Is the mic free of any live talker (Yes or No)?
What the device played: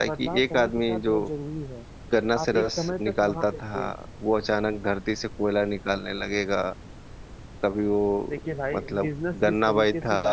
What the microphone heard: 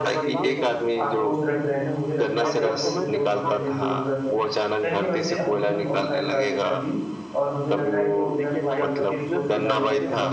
No